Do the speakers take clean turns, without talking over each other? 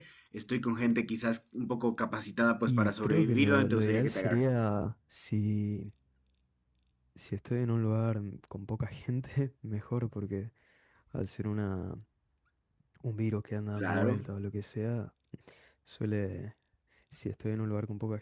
No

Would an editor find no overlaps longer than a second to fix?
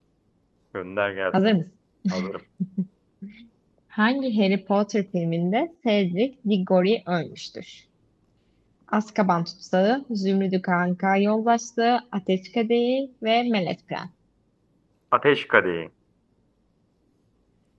Yes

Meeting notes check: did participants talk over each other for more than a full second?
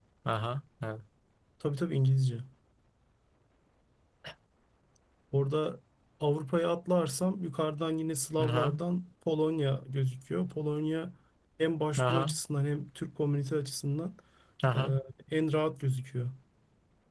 No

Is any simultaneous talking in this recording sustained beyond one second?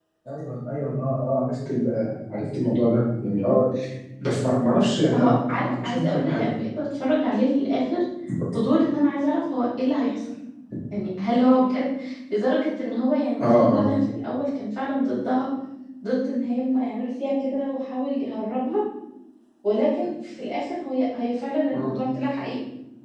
Yes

